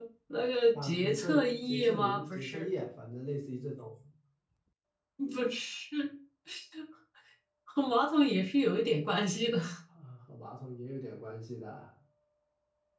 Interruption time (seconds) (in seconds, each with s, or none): 0.7 s